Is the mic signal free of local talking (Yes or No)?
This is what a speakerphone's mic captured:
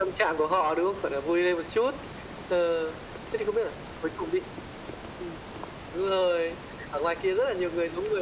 Yes